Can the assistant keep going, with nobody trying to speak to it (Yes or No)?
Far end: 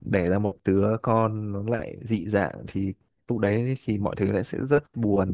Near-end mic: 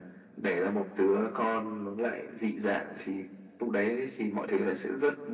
Yes